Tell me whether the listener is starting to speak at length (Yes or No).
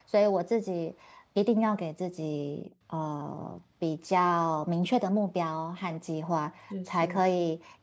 No